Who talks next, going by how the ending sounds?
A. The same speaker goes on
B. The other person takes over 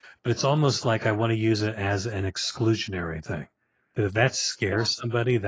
A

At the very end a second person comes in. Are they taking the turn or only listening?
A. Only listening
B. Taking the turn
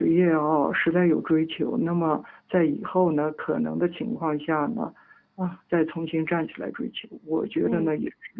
A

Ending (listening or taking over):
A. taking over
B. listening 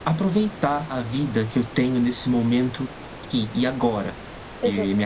B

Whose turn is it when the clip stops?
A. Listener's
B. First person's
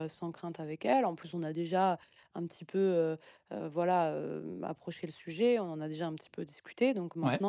B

